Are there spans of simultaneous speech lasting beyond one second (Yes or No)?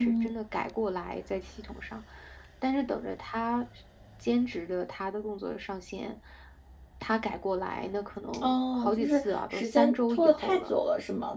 Yes